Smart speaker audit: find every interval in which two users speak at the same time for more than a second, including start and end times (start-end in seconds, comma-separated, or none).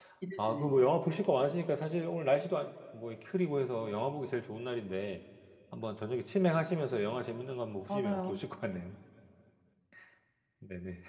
none